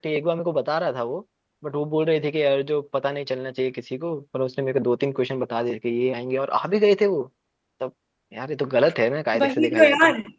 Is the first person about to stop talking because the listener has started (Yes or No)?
Yes